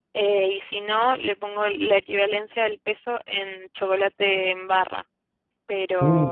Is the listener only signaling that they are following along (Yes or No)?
Yes